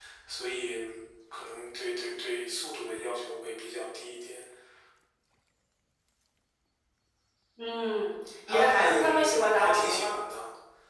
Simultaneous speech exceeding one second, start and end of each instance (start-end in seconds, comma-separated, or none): 8.5-10.1